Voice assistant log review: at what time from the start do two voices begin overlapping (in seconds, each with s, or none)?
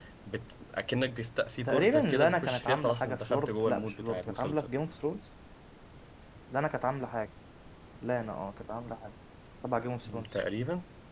1.7 s